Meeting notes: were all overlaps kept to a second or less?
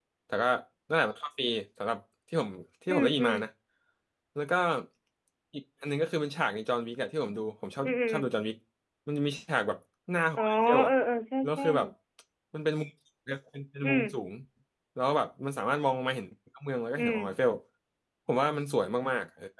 Yes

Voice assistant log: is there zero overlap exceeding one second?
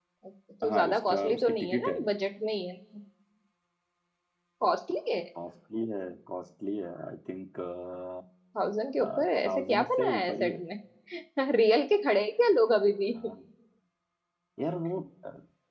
No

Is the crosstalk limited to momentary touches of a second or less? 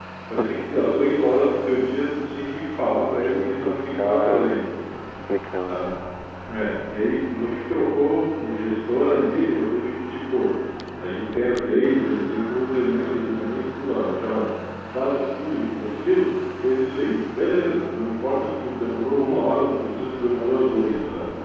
No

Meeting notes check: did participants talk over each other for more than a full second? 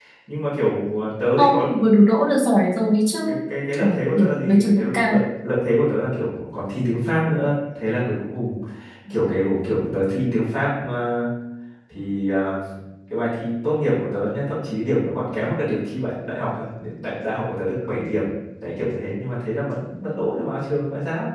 Yes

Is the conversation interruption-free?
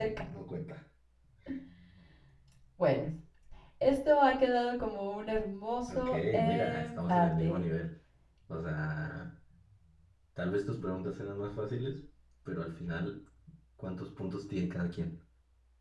No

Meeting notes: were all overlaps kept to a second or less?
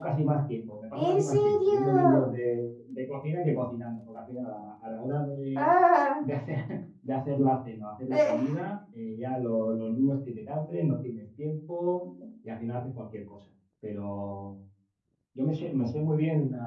No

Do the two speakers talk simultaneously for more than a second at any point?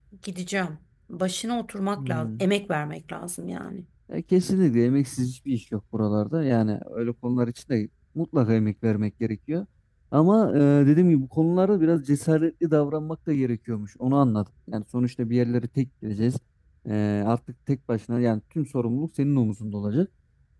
No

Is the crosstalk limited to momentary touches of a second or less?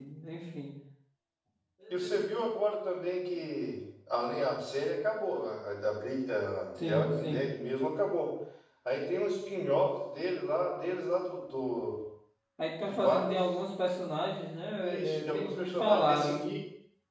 No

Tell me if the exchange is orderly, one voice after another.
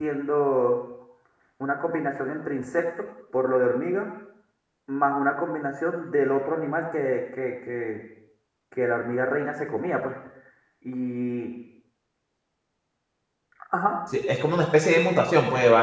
Yes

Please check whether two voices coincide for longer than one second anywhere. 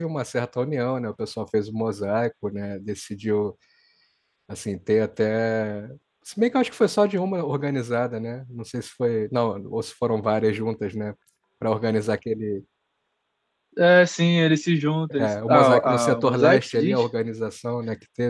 Yes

